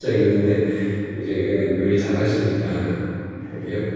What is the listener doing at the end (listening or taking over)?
listening